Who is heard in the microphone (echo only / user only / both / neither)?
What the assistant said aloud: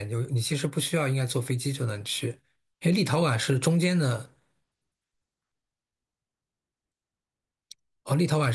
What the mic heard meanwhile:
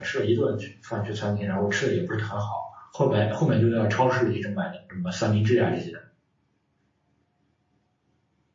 user only